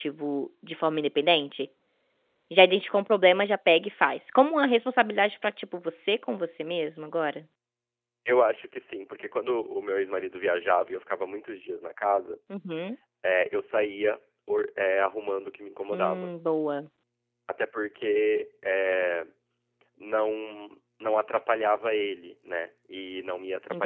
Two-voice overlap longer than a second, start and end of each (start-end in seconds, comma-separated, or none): none